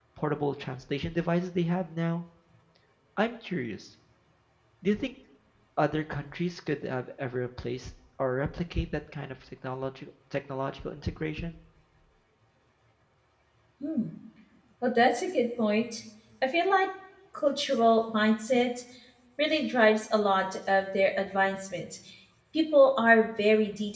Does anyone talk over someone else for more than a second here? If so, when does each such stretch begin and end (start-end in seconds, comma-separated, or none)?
none